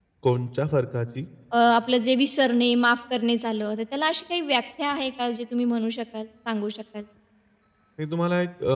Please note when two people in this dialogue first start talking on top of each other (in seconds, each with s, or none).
none